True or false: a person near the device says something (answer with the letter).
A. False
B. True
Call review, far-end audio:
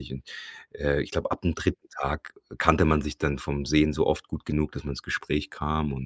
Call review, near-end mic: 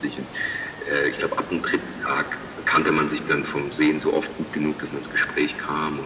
A